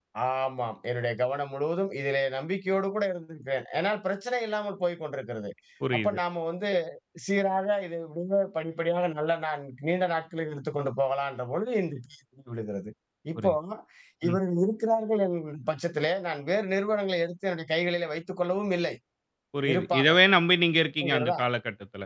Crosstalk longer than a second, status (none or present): none